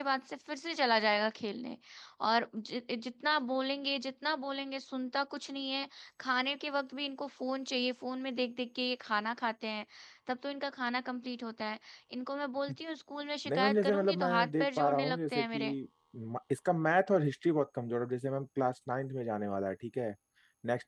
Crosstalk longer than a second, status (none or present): present